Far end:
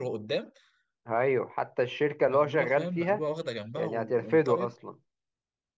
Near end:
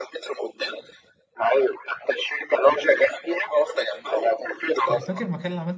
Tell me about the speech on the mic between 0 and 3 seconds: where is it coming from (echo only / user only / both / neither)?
echo only